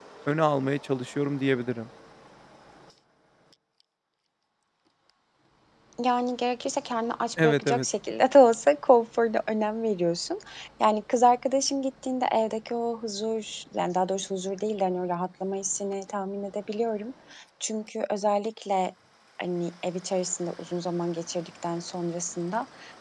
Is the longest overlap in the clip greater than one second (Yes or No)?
No